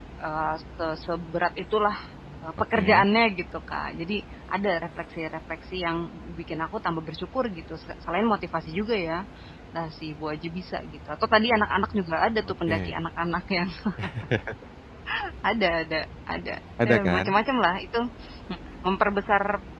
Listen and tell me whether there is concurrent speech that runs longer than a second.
No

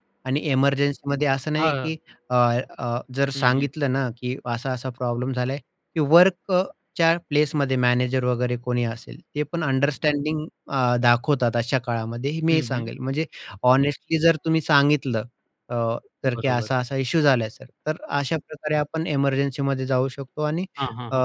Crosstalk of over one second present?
No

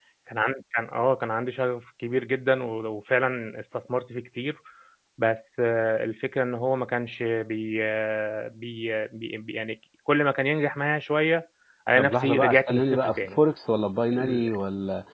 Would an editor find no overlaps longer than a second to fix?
No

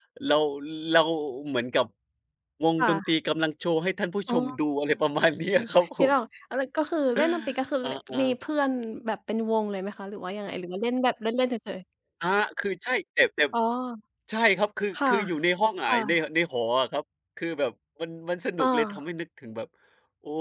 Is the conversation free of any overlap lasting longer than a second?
Yes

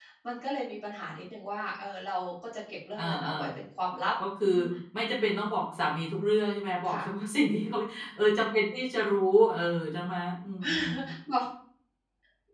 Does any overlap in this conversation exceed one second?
No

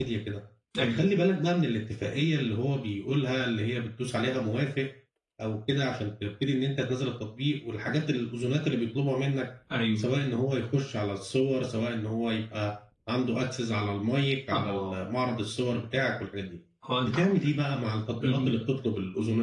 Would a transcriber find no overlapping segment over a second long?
Yes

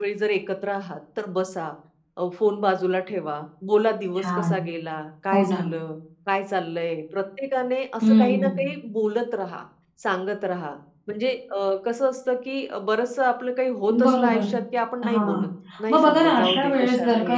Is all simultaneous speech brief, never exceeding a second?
No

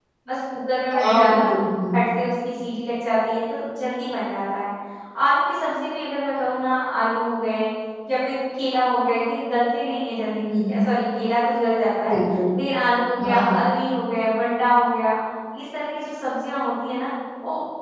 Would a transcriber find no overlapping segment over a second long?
Yes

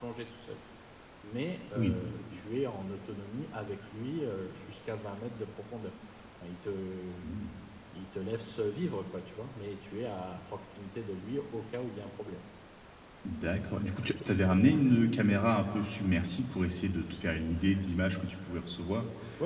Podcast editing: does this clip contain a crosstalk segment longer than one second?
No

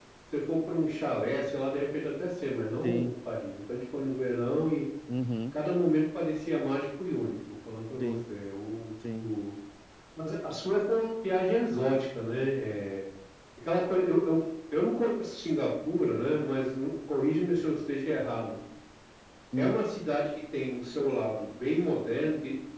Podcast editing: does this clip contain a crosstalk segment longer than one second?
No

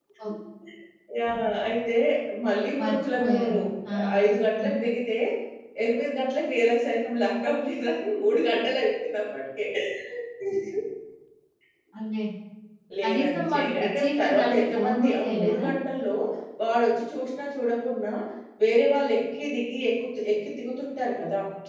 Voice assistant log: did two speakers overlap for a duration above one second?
Yes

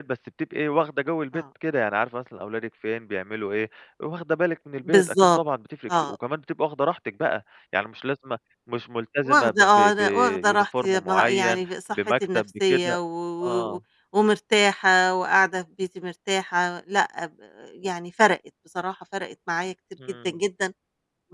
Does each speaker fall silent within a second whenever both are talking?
No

